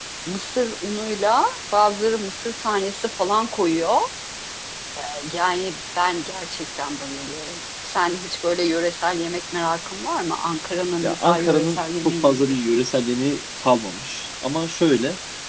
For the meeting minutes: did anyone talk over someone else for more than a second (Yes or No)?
Yes